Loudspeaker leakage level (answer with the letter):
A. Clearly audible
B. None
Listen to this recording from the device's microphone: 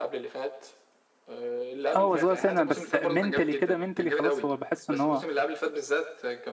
A